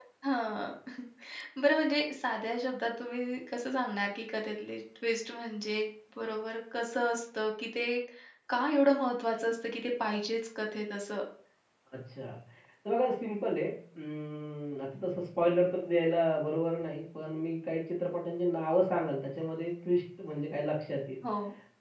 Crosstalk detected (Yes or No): No